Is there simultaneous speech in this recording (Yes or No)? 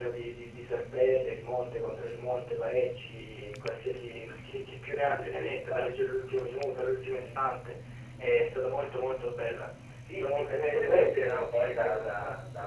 Yes